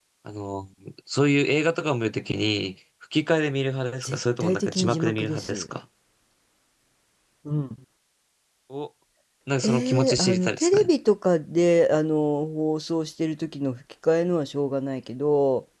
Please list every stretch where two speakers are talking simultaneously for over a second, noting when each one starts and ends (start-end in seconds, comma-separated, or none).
4.0-5.6, 9.6-10.9